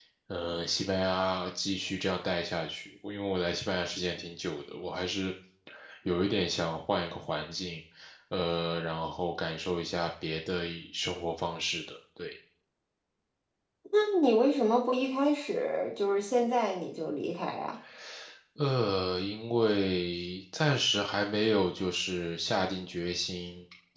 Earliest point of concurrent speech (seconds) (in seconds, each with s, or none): none